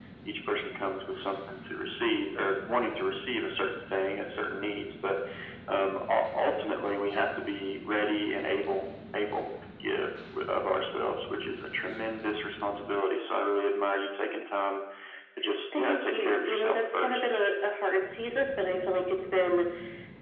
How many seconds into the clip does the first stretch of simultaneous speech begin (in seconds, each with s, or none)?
15.8 s